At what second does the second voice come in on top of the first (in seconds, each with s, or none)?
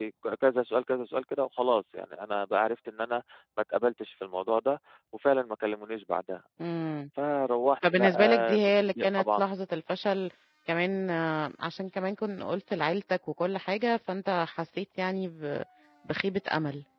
7.9 s